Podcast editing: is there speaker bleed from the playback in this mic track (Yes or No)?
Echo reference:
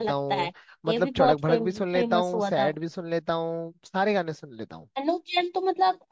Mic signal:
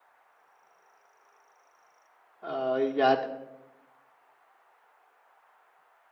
No